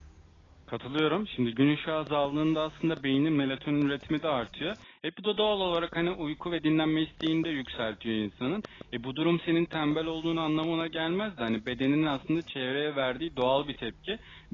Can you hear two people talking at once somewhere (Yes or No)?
No